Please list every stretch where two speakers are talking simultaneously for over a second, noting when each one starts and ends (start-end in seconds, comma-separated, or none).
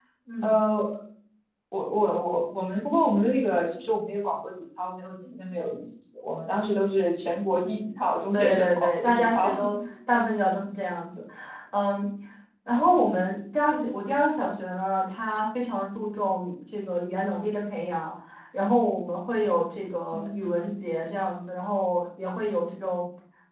8.3-9.6